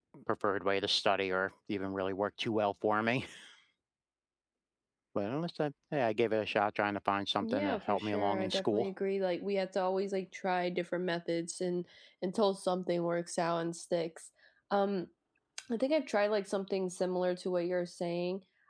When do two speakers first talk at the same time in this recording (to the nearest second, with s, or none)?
7 s